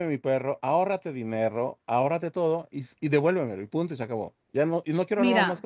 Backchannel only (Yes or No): No